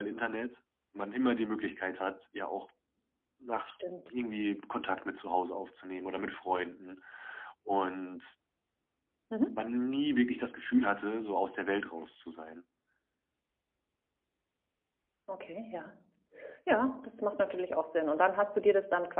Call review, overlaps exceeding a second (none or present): none